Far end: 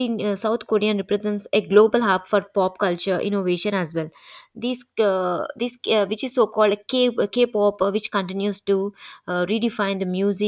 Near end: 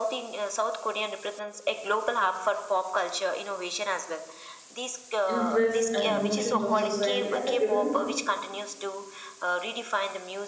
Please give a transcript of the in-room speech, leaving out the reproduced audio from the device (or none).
interests, and emotions of society at a given